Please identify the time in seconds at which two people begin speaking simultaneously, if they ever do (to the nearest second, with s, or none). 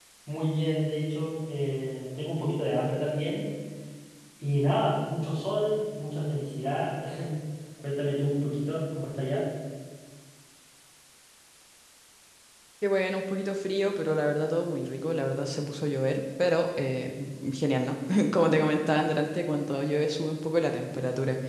none